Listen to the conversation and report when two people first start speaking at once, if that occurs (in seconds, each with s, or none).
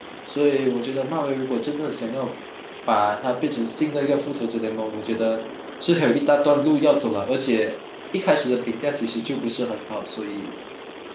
none